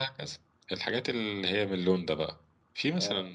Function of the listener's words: listening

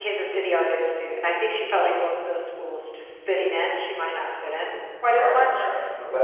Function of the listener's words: taking over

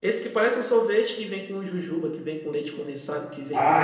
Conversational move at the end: taking over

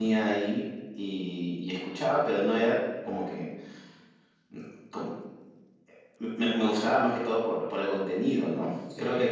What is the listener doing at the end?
listening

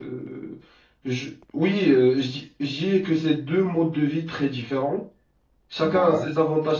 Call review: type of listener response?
listening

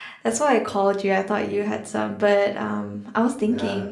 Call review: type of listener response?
listening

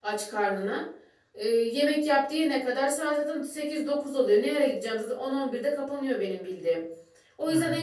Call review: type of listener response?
listening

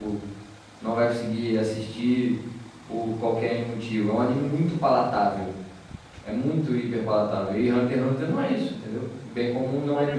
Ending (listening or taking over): taking over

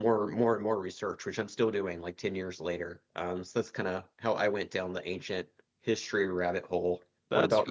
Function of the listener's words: taking over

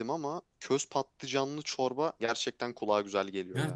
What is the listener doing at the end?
taking over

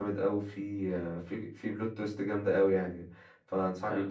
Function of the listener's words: listening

